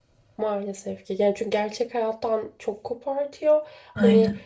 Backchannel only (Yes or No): Yes